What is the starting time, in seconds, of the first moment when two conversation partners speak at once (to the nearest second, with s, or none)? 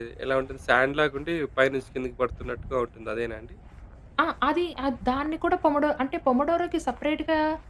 none